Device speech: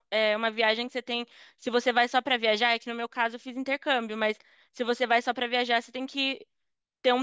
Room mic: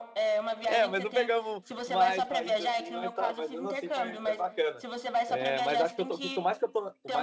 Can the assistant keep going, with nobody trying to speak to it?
No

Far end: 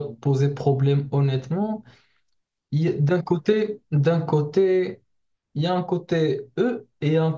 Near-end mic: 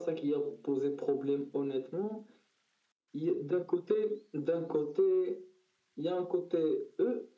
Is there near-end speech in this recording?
No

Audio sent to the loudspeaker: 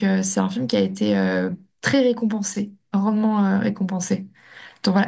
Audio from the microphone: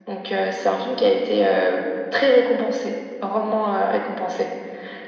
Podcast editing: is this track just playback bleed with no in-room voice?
Yes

